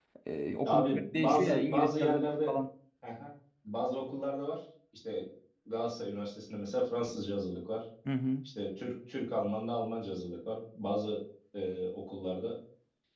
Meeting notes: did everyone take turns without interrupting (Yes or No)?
No